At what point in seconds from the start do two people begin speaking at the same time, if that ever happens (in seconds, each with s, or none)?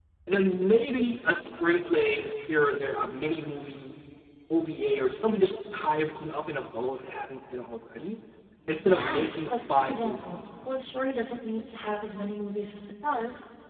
8.7 s